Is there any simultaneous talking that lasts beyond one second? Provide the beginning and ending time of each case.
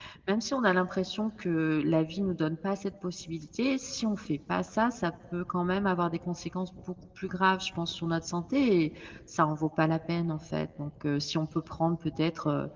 none

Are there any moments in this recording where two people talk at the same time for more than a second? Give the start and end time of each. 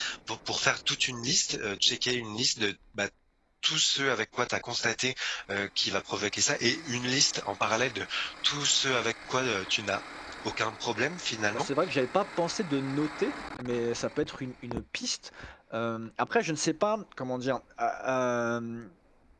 none

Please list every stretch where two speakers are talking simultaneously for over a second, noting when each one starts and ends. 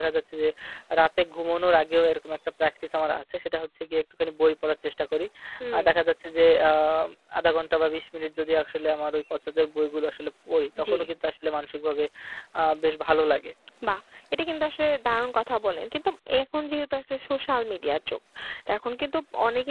none

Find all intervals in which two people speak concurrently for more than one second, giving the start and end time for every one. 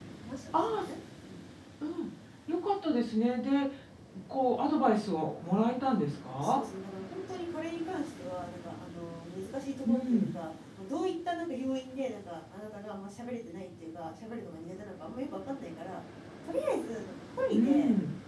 none

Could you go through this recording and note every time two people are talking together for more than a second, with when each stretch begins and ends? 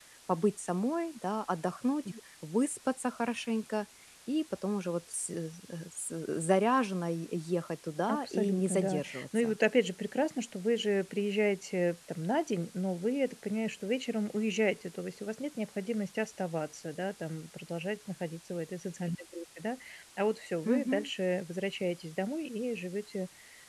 8.1-9.6

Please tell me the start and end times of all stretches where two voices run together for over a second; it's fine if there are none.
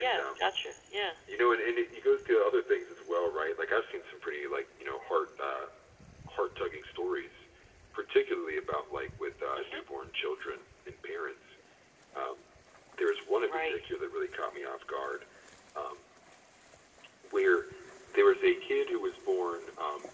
none

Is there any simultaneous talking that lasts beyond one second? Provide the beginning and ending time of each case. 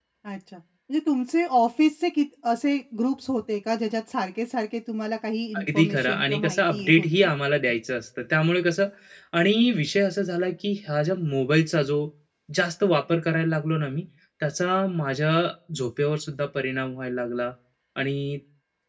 5.6-7.3

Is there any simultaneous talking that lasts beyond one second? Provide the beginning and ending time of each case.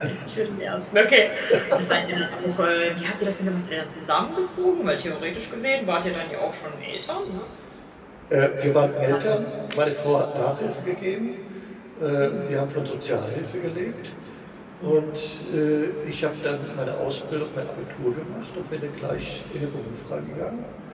none

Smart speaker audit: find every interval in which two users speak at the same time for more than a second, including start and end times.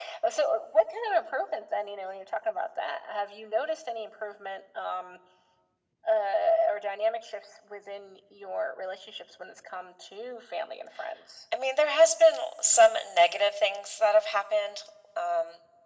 none

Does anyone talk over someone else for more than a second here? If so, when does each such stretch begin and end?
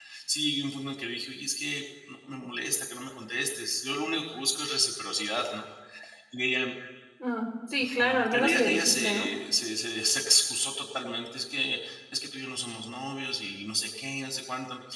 7.8-9.3

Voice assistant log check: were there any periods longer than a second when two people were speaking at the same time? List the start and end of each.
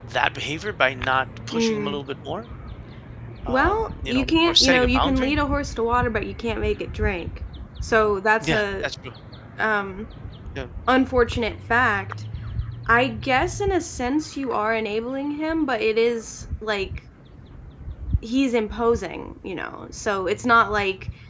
3.5-5.3

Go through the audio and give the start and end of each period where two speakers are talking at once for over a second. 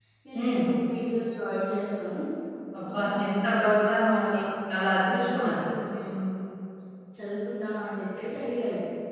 2.9-4.4

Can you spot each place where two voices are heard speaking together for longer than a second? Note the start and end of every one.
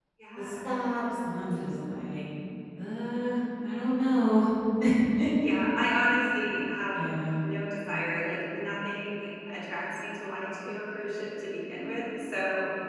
none

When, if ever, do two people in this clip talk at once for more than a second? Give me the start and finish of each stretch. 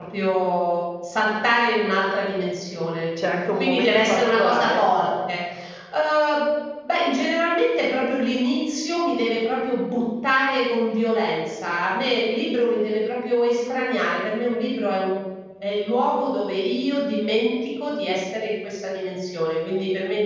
3.6-4.8

